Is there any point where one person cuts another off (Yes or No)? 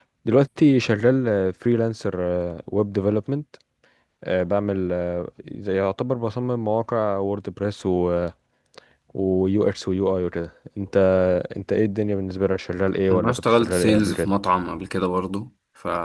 Yes